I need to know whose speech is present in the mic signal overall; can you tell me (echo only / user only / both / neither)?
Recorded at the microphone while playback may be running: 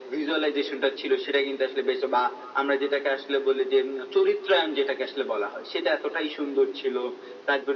echo only